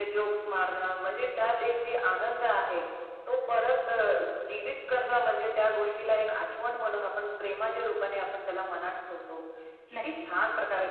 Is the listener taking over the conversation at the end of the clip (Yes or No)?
No